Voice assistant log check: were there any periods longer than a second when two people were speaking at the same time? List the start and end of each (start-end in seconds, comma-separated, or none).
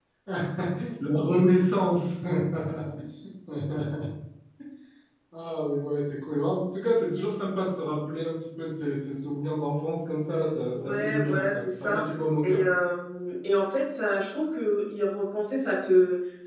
10.7-12.0